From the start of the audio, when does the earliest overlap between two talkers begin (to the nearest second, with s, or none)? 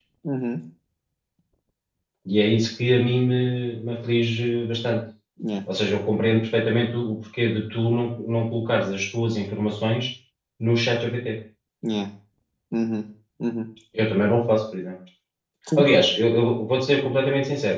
none